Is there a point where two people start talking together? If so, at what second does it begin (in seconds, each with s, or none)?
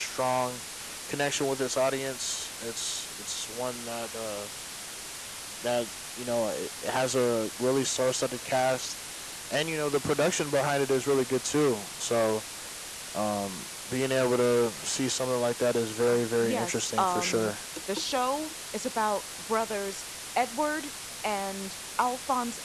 16.1 s